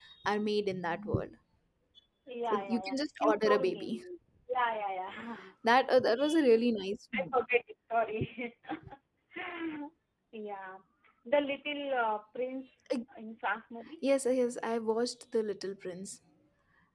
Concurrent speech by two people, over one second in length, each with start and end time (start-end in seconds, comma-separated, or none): 2.5-4.0